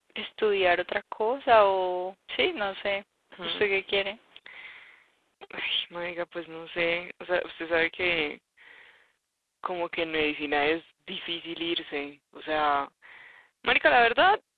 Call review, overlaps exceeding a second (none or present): none